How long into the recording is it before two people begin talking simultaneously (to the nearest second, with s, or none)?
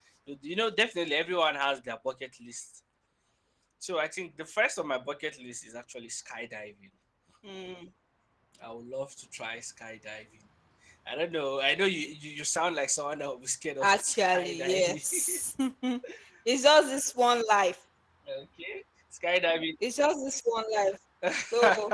14 s